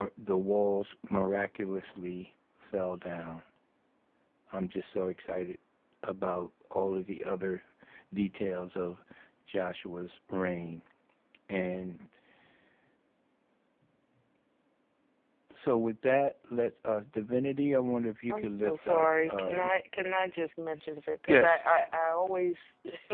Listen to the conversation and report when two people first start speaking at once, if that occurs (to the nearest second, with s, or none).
18 s